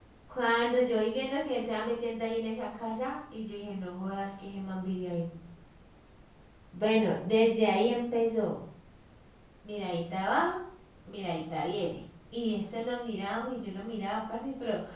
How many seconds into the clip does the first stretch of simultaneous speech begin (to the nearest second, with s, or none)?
none